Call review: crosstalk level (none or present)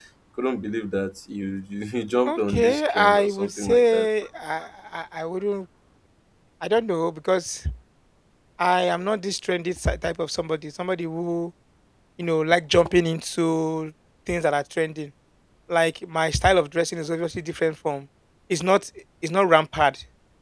present